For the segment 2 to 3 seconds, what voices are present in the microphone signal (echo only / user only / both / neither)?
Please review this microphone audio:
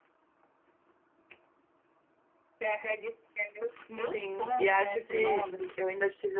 echo only